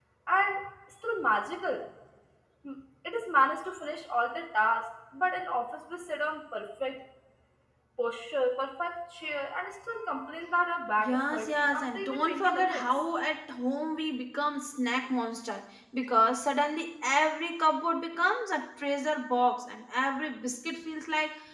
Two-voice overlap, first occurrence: 11.0 s

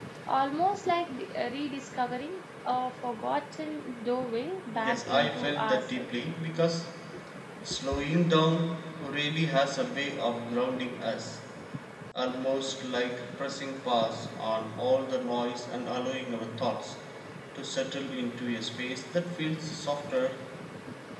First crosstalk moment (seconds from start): 4.8 s

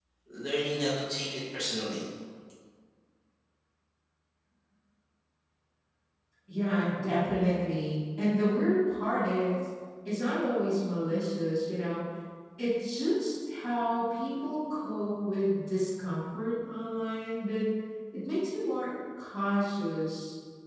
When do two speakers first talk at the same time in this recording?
none

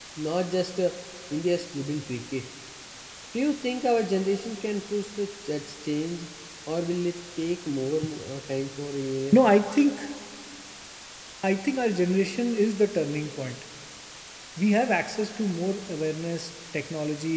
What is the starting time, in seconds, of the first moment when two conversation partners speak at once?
none

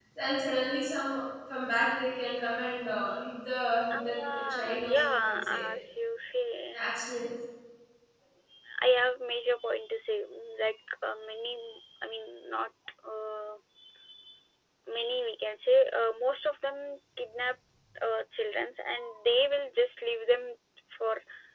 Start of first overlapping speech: 3.9 s

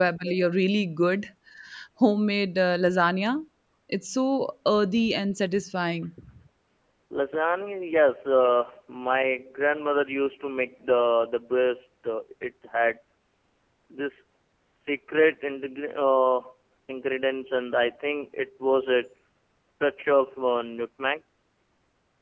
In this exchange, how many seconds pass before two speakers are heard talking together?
none

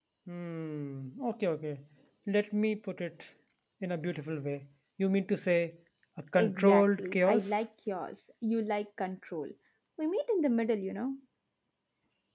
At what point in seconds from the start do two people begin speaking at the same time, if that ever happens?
6.3 s

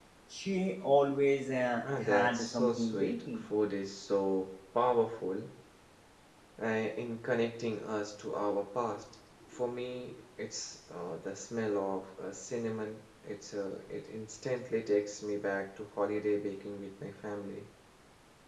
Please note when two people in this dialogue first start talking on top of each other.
1.8 s

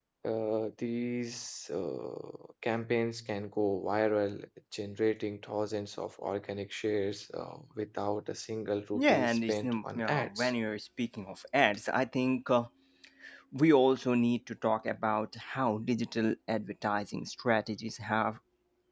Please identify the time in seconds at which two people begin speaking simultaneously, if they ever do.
8.9 s

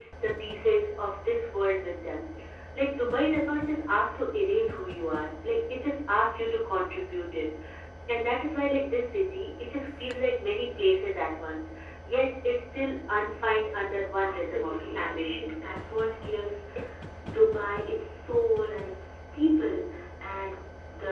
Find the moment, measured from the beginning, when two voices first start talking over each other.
14.2 s

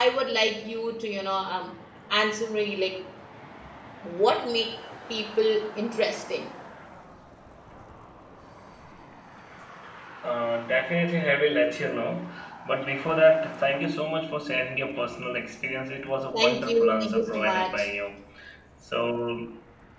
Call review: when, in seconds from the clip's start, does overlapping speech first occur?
16.3 s

